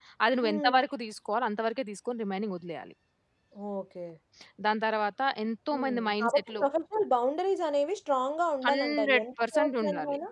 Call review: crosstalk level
present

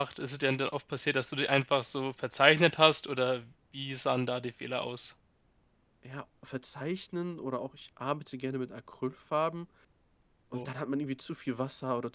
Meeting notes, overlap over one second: none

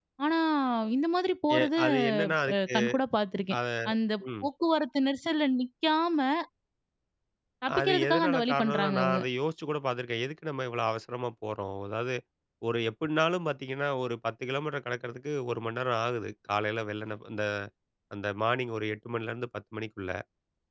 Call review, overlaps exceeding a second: present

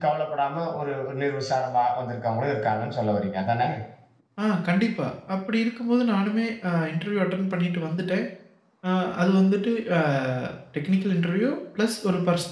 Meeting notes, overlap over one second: none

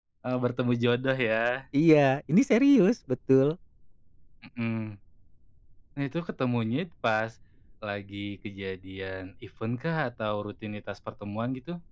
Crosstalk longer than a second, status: none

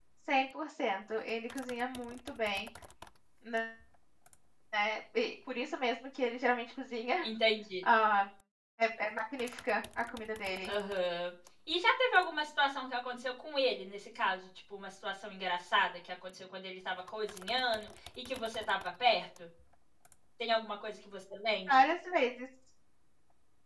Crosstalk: none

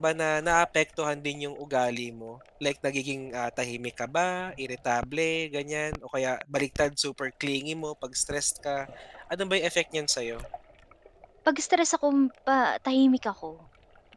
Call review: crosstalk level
none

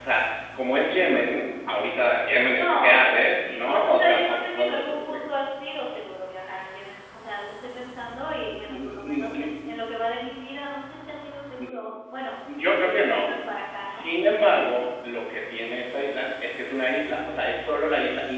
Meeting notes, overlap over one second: present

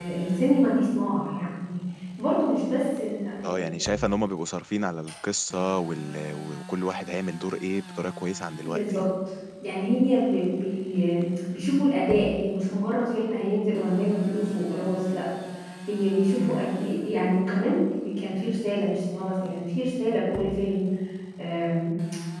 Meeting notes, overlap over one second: none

